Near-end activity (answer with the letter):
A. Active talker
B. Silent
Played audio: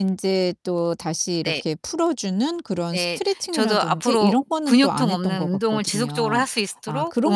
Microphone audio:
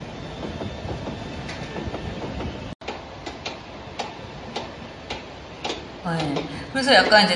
A